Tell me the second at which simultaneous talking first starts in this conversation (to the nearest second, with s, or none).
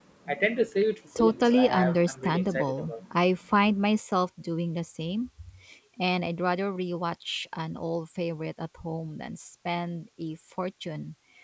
1 s